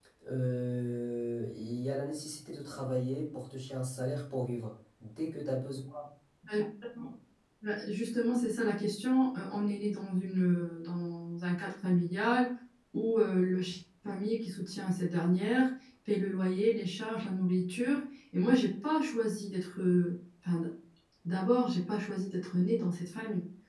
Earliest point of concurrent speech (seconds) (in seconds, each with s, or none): none